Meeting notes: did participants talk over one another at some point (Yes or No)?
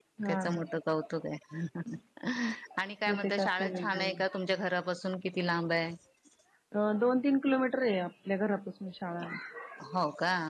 Yes